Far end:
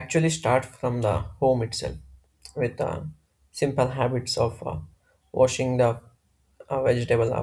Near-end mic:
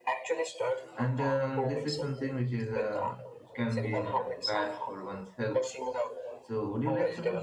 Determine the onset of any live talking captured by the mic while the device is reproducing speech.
1.0 s

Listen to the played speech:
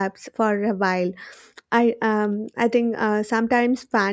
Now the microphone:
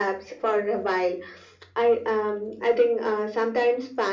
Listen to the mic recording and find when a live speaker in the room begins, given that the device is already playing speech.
none

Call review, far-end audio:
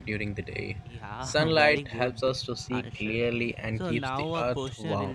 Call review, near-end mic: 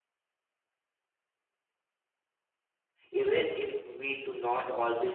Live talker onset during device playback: 3.1 s

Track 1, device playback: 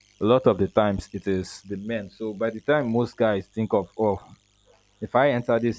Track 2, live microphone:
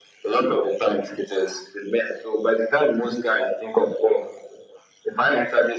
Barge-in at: none

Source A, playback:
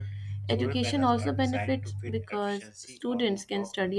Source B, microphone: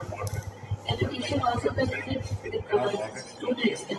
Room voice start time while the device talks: 2.7 s

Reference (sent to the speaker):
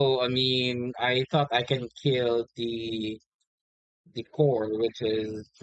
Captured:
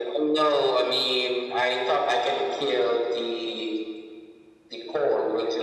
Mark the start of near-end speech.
none

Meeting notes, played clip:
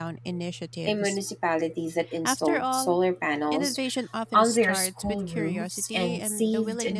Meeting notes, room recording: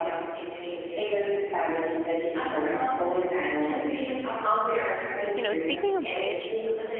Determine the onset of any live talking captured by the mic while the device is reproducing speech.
5.3 s

